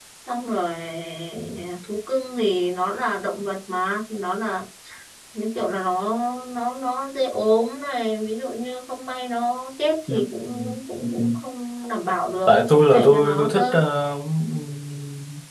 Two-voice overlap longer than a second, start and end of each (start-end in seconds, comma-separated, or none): 12.5-13.7